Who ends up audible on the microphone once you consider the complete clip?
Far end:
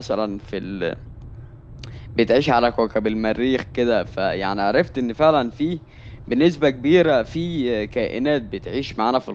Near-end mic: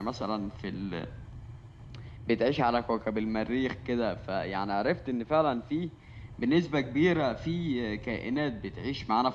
echo only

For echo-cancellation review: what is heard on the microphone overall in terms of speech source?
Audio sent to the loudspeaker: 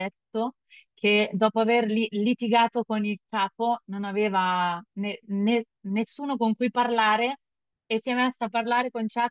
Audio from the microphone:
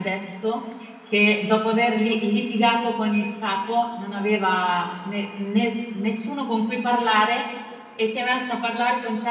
echo only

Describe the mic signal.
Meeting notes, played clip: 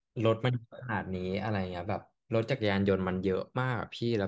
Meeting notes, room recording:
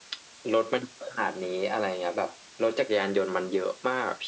echo only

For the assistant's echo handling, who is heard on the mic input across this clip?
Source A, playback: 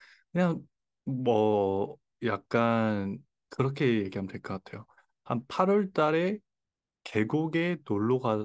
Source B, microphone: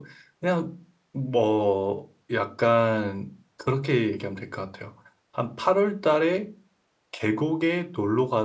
echo only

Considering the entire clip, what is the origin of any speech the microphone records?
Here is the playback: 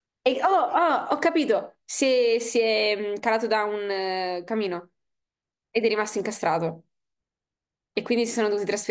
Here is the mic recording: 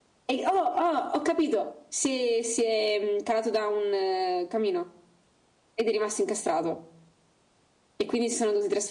echo only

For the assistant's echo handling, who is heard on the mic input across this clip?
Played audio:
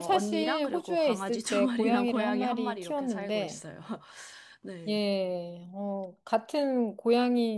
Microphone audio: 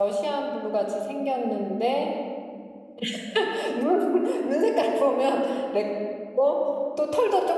user only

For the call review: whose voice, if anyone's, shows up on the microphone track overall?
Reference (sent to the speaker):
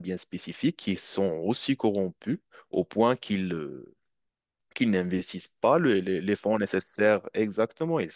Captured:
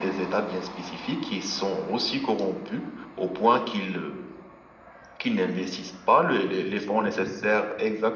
echo only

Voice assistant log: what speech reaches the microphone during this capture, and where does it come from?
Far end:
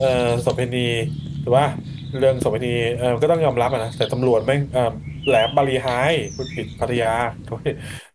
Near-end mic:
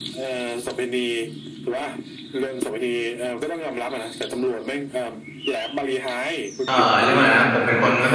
both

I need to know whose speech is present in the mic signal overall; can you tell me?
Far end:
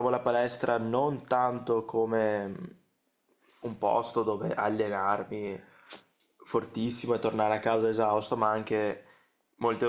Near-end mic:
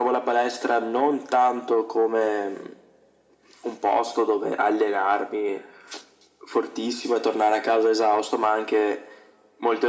echo only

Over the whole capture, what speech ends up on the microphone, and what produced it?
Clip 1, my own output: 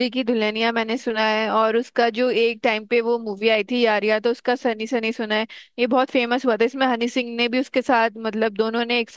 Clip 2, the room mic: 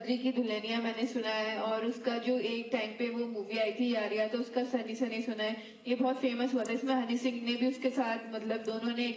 echo only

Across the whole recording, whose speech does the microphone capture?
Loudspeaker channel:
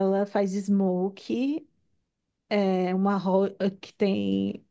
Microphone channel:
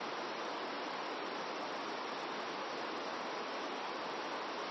neither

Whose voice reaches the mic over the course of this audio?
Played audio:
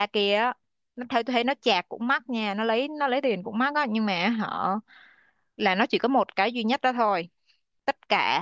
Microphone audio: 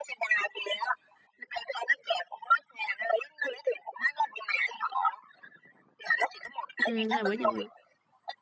both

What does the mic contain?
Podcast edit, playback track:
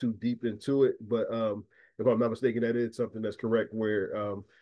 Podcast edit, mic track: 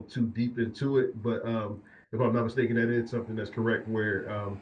echo only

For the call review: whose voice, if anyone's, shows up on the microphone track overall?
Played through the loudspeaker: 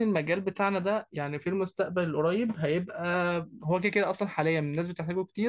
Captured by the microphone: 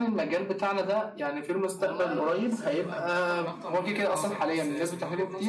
both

